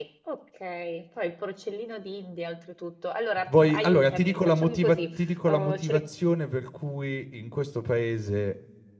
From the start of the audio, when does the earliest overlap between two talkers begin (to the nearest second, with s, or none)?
3 s